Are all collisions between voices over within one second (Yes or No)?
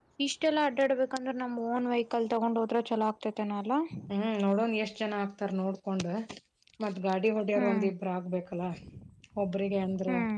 Yes